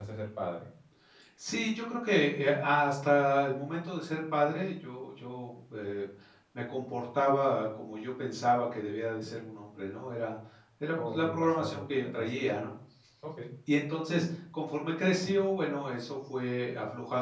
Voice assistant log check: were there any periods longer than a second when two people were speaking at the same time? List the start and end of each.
11.1-12.3

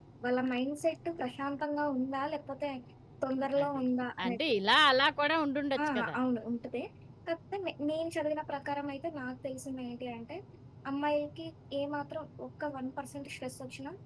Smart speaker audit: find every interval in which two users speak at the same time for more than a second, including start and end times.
none

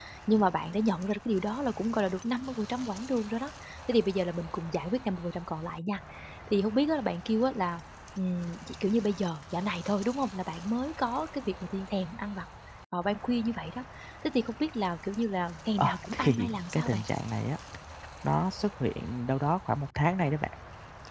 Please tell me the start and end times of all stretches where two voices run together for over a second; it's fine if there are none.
15.8-17.0

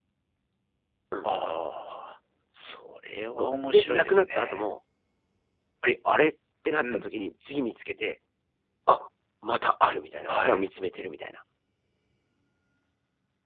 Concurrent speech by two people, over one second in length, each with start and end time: 3.4-4.6

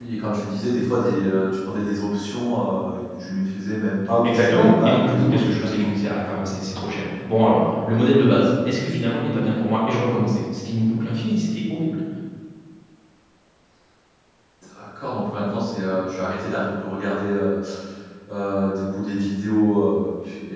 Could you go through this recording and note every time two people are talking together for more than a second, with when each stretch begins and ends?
4.2-5.9

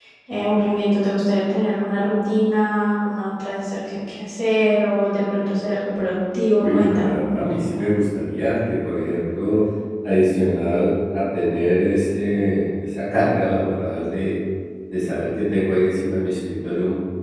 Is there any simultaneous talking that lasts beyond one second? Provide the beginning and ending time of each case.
none

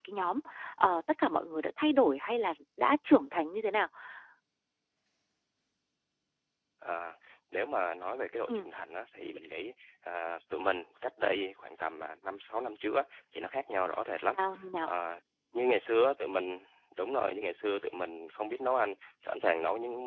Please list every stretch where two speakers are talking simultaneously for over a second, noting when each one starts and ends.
none

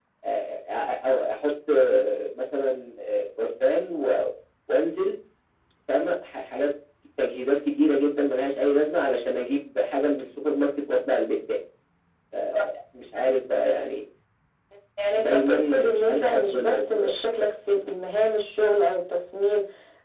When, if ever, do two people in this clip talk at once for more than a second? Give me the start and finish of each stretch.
15.2-17.1

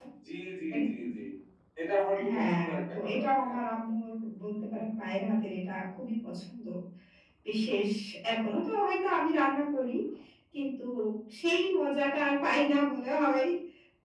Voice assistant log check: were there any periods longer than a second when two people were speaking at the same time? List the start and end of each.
2.3-3.6

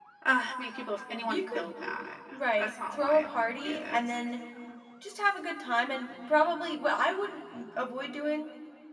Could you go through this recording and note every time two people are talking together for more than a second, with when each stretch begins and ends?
2.6-4.0

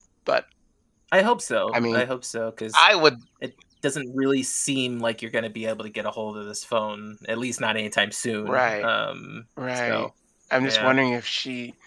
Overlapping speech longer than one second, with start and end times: none

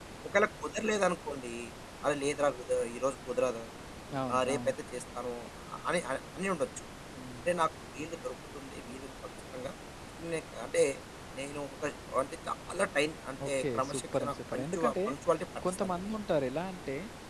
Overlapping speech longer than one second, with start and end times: 13.5-14.9

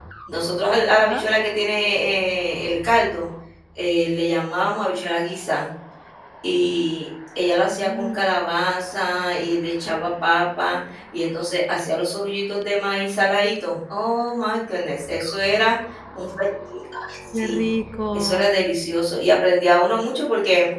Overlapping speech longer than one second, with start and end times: none

